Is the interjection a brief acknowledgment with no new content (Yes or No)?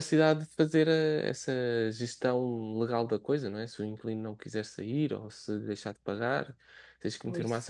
Yes